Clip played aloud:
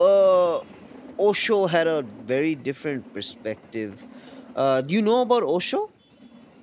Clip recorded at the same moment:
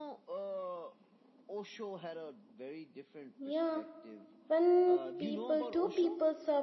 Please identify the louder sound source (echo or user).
user